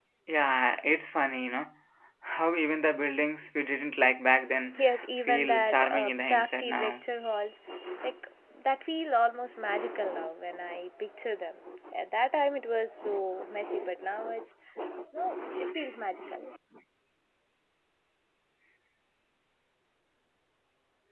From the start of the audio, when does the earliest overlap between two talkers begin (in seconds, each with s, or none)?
4.7 s